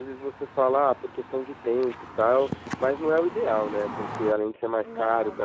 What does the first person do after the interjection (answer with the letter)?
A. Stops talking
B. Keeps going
B